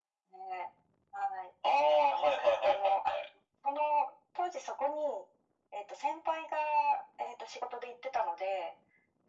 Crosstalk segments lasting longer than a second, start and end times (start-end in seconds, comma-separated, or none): 1.9-3.1